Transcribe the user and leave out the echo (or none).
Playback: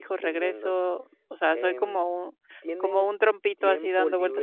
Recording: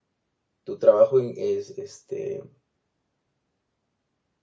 tu trabajo in es, este,